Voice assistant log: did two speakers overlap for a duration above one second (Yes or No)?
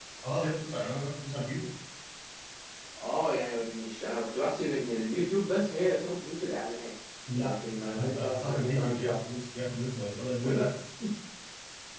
Yes